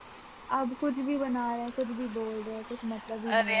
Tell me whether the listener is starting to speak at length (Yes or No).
Yes